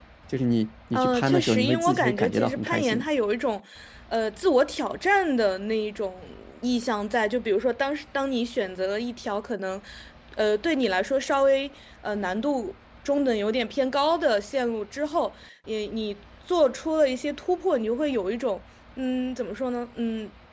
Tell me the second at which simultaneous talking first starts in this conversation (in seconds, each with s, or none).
0.9 s